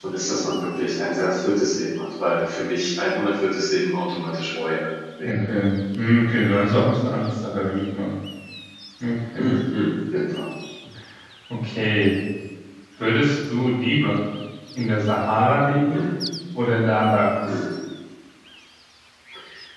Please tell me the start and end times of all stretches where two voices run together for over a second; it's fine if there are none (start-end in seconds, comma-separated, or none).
none